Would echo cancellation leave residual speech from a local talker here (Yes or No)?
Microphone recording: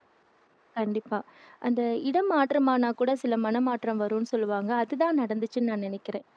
Yes